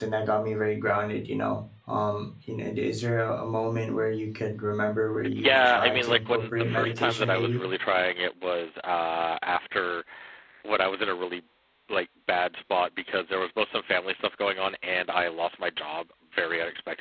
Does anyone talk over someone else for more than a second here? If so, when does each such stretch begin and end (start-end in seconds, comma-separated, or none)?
5.4-7.6